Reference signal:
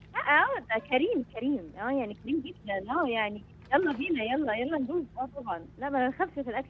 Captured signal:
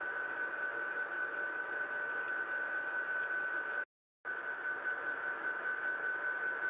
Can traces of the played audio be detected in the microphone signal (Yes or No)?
No